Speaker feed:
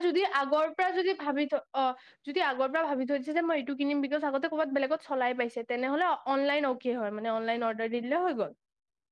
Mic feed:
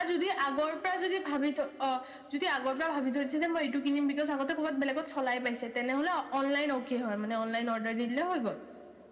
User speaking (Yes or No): No